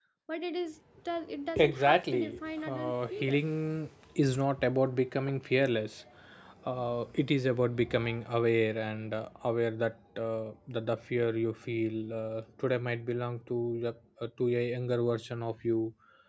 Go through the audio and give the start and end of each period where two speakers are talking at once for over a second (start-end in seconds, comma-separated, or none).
1.6-3.4